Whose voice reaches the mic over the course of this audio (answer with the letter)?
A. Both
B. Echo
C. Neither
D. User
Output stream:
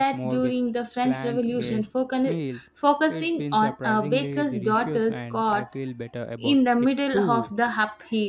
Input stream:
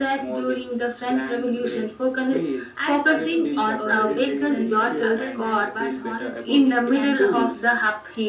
A